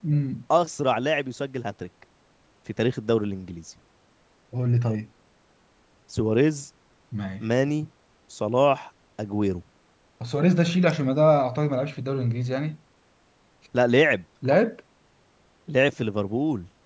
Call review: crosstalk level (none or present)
none